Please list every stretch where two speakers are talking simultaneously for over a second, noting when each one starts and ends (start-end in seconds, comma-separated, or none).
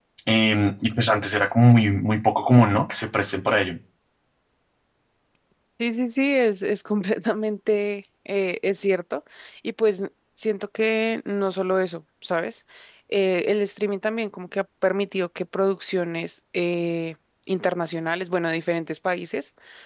none